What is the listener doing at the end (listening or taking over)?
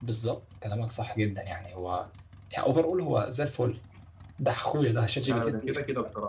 taking over